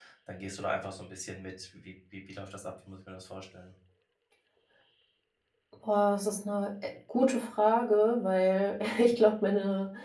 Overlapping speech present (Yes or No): No